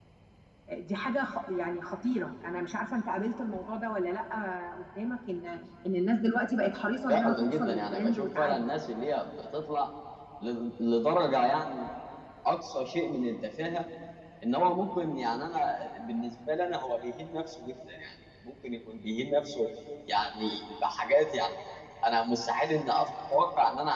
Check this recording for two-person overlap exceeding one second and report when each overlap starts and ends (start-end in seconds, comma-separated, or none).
7.1-8.6